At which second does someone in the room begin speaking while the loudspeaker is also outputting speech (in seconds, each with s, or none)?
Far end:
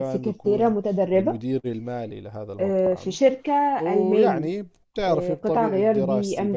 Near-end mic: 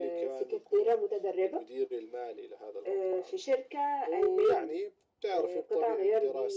none